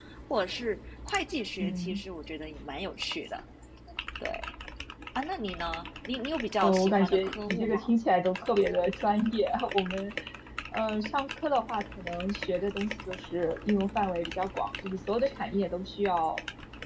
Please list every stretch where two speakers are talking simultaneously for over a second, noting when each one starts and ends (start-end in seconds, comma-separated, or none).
6.6-7.9